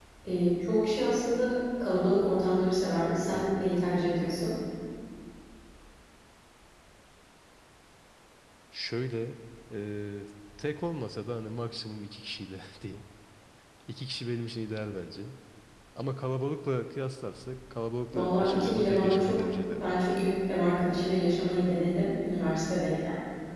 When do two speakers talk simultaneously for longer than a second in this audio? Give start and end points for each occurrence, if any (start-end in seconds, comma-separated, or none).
18.1-20.0